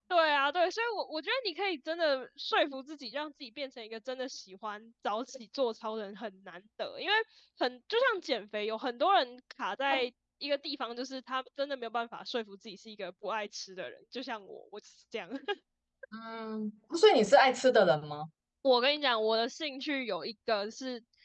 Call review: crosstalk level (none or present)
none